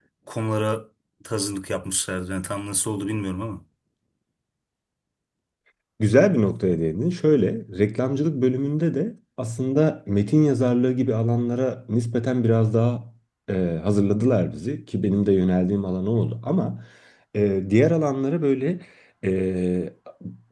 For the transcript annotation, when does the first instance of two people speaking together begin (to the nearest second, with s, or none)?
none